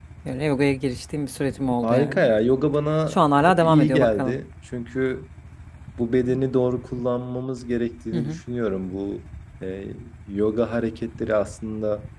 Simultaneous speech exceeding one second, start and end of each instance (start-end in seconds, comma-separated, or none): 3.1-4.4